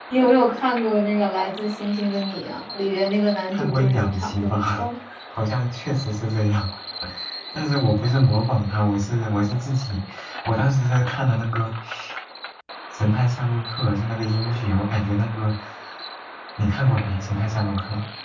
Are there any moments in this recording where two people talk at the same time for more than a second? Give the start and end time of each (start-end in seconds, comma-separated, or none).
3.5-4.8